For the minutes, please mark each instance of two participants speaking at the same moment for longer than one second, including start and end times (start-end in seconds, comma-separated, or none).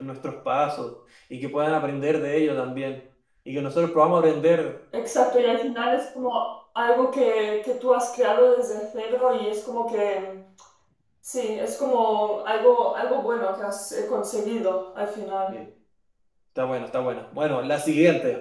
none